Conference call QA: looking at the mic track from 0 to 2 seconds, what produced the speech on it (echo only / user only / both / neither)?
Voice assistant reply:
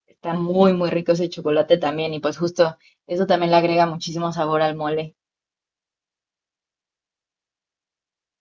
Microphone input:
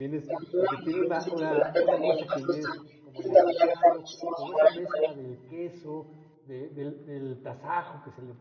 both